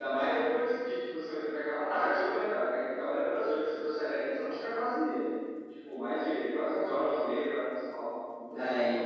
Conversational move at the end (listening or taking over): taking over